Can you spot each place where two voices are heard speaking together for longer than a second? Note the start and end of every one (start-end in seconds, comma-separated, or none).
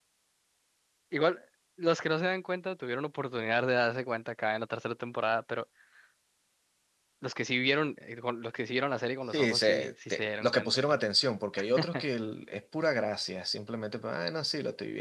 9.3-10.8